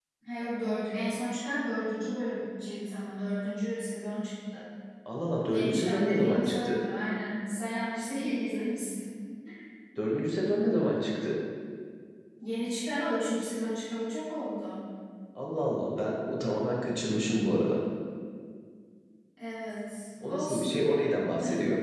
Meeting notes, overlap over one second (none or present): present